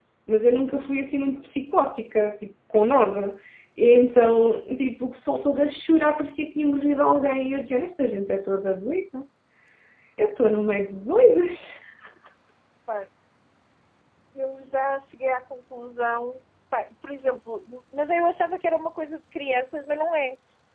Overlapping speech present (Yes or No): No